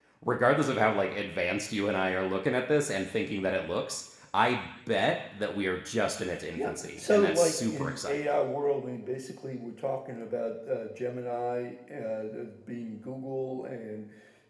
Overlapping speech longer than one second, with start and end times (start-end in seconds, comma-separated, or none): 6.6-8.3